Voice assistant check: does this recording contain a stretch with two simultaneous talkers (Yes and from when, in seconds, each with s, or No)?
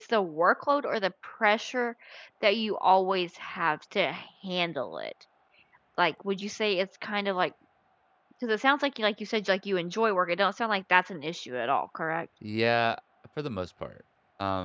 No